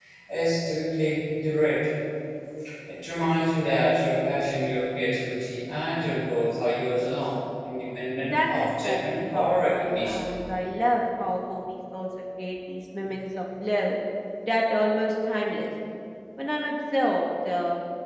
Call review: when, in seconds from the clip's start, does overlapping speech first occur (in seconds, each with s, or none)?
8.2 s